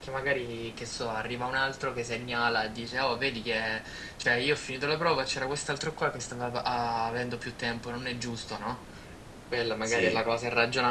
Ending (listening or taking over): listening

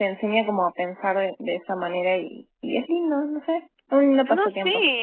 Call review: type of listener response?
taking over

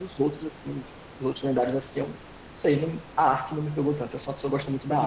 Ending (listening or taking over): taking over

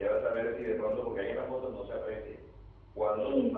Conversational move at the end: listening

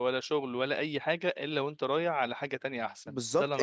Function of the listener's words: taking over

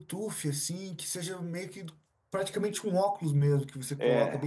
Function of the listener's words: taking over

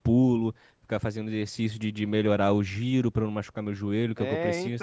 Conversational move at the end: taking over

